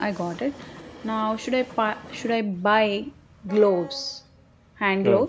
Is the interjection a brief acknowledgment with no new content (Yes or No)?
No